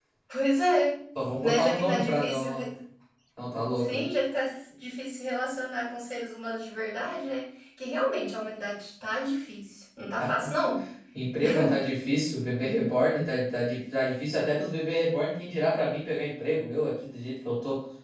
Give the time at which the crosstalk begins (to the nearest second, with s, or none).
1 s